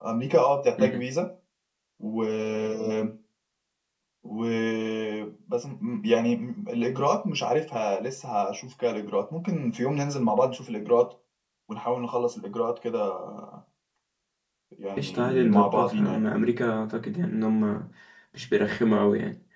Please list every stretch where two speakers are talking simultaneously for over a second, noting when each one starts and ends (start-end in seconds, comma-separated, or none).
15.0-16.2